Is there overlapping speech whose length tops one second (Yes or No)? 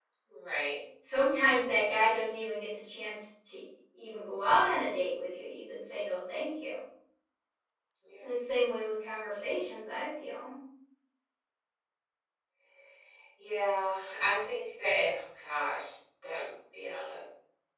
No